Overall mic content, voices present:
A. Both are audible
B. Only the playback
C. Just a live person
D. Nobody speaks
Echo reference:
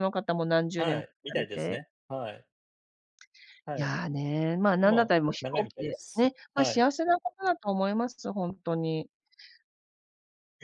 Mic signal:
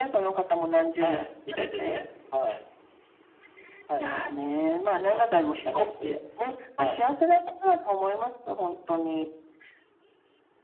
B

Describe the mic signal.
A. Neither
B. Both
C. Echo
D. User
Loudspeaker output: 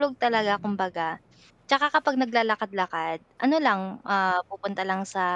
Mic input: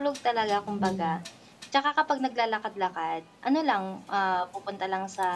B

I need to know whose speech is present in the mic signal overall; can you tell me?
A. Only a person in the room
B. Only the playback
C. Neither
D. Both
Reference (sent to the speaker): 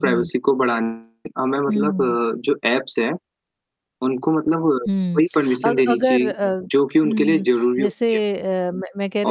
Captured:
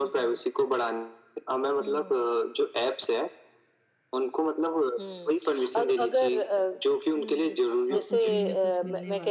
D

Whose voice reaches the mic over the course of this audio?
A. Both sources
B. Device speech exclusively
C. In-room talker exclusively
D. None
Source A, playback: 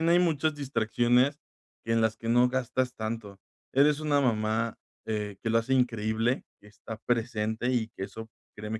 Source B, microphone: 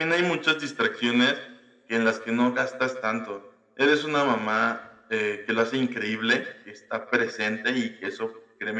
B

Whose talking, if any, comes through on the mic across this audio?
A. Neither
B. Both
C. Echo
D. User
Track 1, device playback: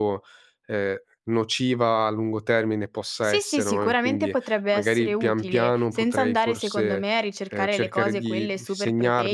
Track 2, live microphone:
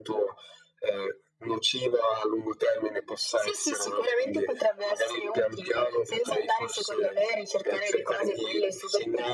C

